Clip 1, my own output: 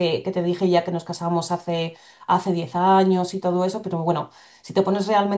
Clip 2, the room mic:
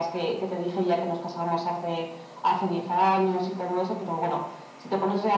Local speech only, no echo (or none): none